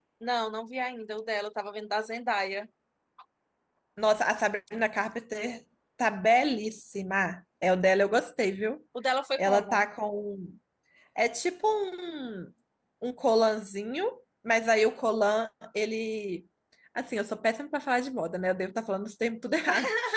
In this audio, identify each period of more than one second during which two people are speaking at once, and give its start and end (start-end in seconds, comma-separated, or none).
none